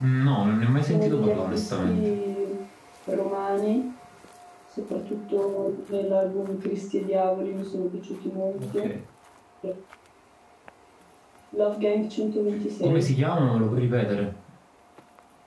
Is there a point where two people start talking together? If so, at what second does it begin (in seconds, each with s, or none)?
0.9 s